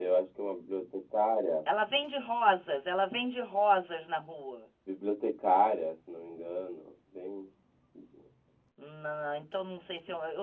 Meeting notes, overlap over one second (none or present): none